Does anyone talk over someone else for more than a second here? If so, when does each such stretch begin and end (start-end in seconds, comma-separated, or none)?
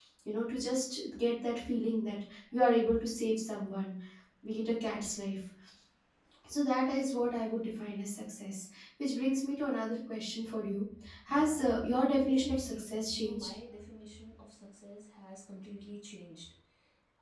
11.3-13.5